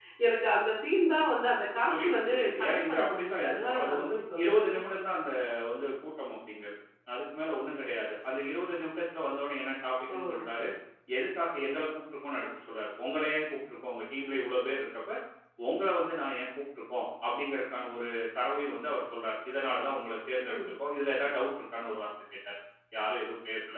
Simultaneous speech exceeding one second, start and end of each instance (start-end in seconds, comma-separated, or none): 2.0-4.6